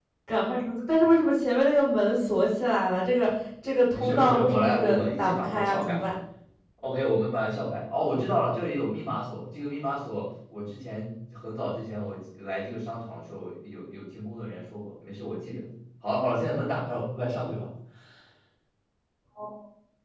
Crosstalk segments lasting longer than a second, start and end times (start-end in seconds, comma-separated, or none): 3.9-6.0